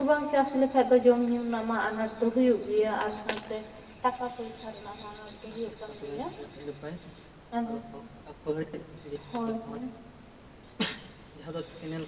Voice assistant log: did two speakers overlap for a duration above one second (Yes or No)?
No